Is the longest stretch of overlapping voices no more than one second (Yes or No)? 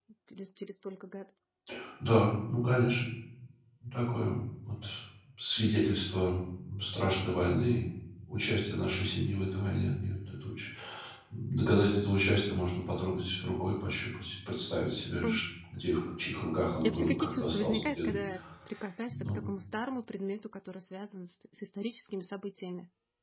No